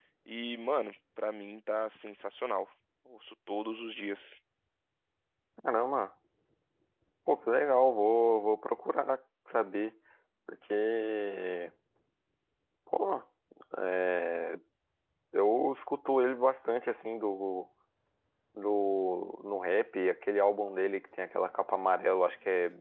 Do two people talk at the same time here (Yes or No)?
No